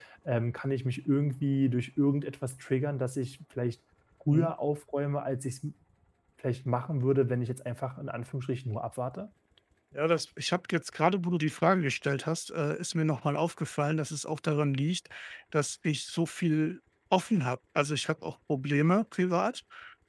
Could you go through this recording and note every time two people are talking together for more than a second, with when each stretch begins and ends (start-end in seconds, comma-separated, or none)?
none